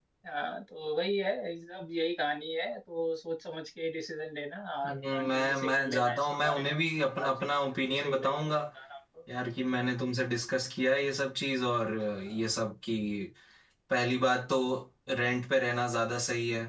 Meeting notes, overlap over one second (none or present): present